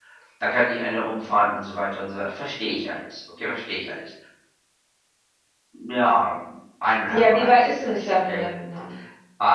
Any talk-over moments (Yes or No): Yes